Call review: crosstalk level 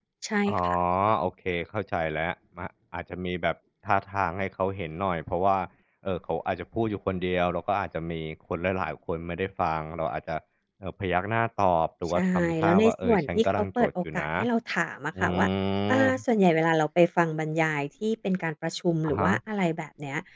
present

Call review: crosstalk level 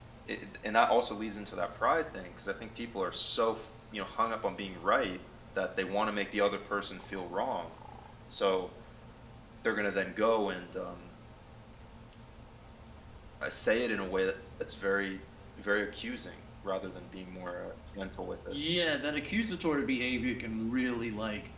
none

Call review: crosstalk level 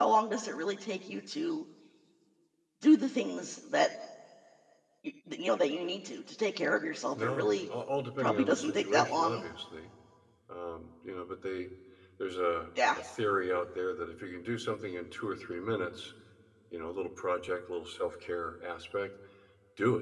present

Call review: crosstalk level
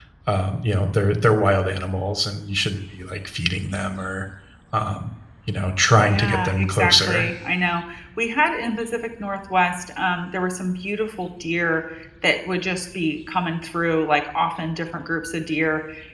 present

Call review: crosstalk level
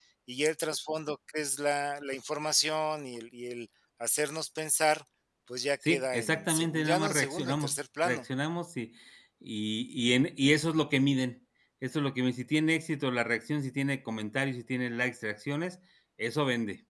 present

